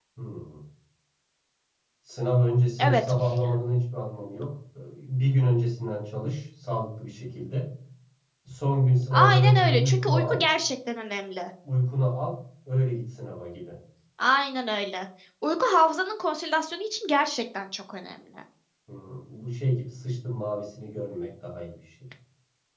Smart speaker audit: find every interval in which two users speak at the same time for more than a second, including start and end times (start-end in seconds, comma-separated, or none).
9.1-10.4